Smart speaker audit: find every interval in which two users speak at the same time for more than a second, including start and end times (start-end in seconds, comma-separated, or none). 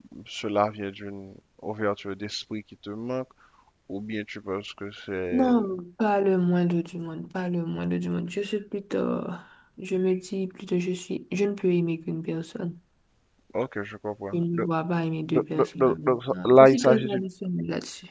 15.2-17.2